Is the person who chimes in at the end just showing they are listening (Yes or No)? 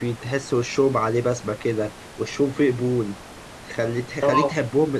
Yes